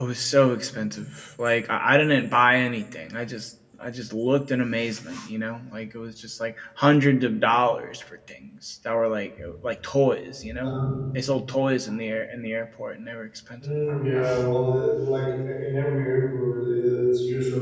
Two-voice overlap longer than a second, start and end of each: none

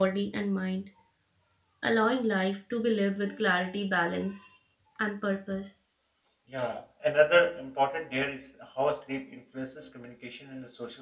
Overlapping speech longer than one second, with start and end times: none

